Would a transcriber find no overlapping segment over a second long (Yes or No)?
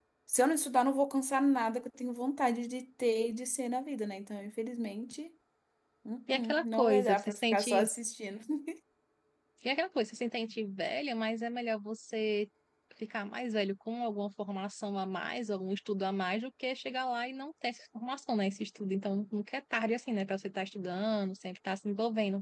No